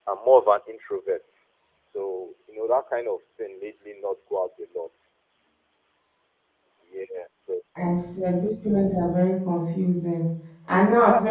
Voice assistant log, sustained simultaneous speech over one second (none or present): none